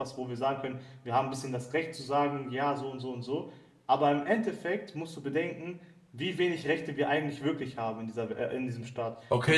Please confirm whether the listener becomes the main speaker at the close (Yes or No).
Yes